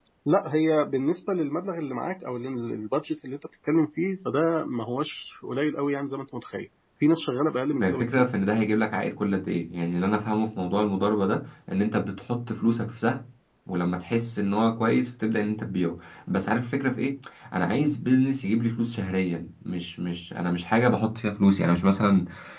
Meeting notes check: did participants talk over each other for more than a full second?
No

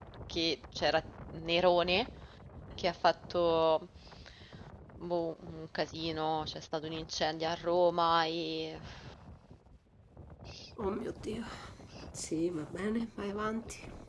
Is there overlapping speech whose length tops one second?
No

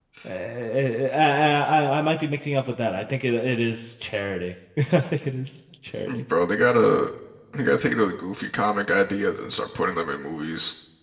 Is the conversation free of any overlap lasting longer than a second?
Yes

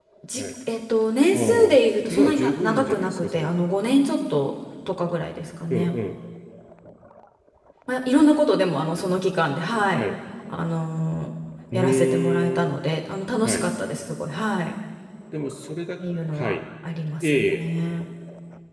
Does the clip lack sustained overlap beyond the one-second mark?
No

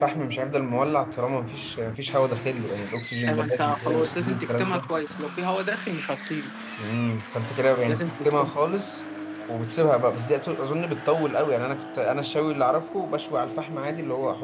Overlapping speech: Yes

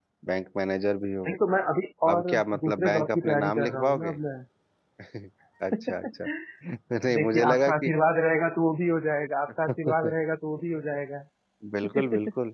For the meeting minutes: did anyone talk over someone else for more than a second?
Yes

